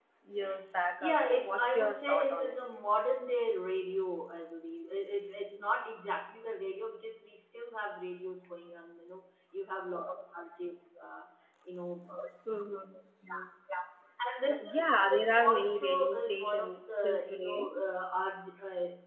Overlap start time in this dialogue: 1.0 s

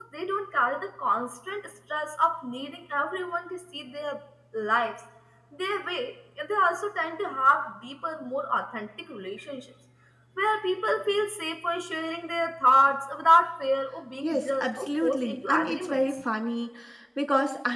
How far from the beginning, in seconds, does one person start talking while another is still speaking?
14.2 s

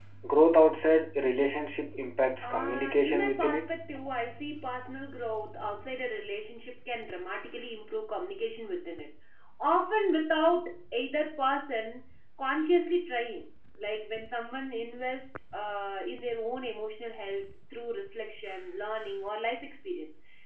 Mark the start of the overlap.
2.4 s

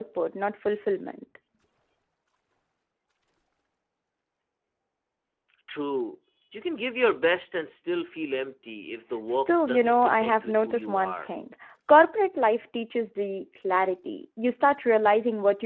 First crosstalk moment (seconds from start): 9.3 s

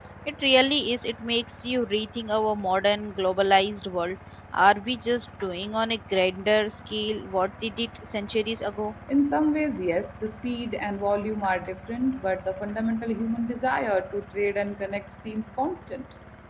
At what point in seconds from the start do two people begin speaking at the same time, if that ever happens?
none

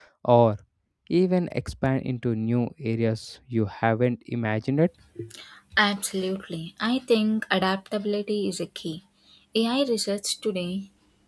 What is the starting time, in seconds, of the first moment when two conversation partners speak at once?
none

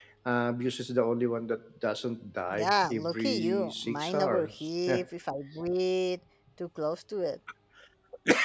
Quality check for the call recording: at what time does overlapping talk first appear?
2.5 s

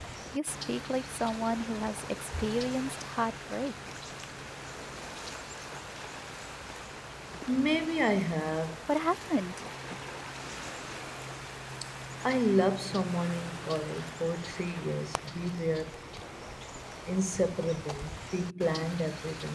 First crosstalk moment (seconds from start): none

